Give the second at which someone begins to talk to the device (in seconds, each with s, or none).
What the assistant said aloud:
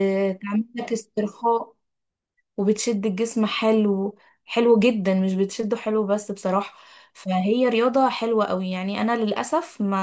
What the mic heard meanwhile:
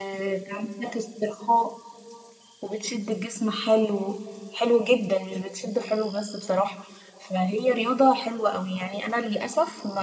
none